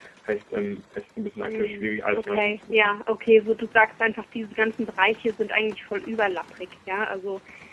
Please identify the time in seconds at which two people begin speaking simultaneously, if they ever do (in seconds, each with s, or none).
1.4 s